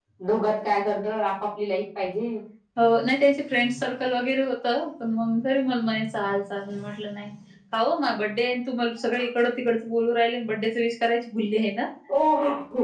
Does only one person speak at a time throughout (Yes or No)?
Yes